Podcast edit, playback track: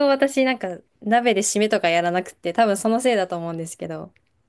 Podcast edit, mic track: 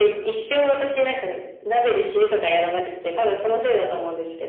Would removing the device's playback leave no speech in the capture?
Yes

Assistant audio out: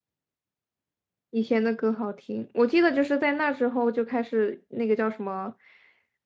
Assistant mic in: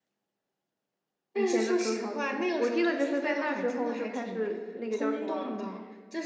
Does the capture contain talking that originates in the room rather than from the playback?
Yes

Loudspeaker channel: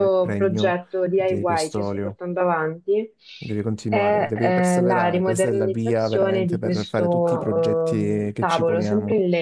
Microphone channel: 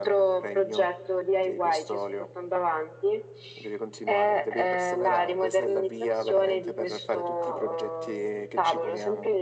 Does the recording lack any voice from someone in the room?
Yes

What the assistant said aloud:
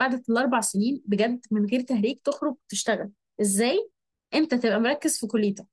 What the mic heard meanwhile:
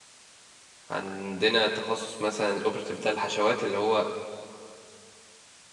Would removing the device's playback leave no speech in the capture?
No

